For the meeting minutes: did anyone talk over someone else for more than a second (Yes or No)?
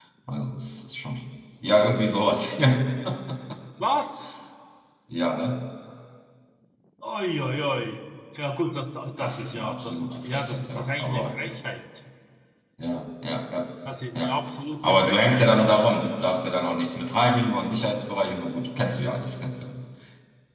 Yes